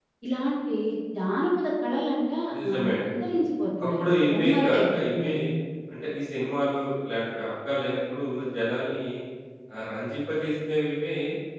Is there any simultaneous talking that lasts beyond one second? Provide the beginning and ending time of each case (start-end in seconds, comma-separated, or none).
3.8-5.3